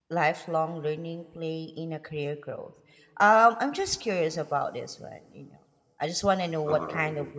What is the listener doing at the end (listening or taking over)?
listening